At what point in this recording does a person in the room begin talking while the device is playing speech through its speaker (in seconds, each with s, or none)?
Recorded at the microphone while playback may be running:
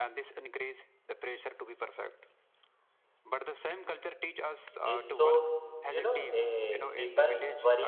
4.7 s